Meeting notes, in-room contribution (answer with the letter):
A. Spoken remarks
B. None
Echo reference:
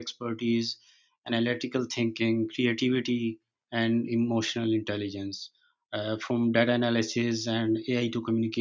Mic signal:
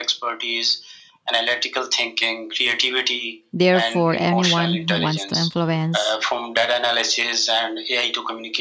A